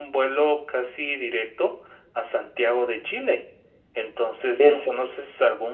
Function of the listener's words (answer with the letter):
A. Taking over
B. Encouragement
B